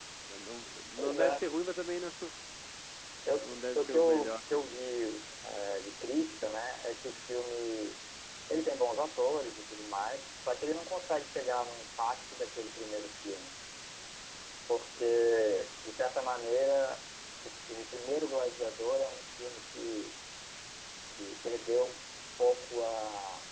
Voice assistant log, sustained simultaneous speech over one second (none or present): present